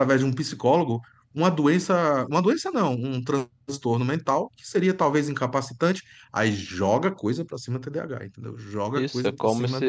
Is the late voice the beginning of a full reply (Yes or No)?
Yes